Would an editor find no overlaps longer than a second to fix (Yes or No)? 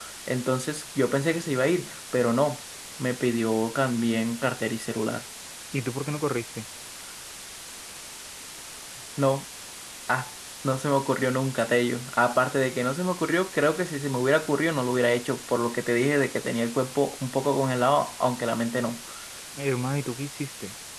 Yes